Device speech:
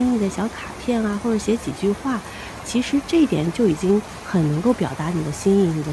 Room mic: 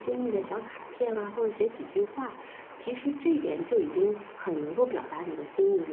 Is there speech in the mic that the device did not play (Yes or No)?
No